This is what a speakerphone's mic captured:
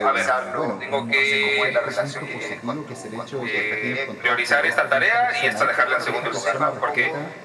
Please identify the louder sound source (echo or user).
echo